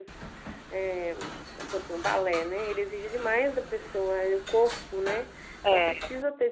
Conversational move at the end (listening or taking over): listening